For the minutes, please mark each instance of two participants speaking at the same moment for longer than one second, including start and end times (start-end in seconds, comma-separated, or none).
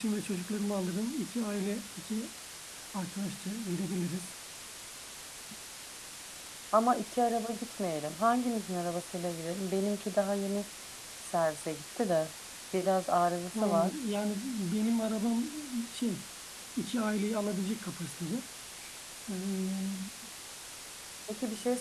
none